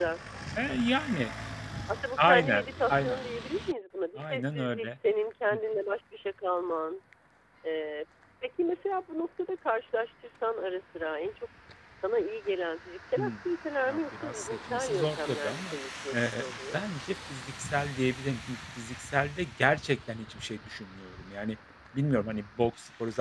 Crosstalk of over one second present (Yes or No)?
Yes